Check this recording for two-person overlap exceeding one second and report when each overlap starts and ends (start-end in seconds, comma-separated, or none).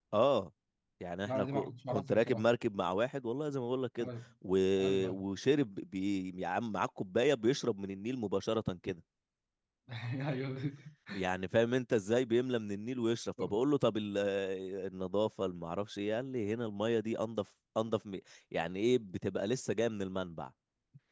1.2-2.5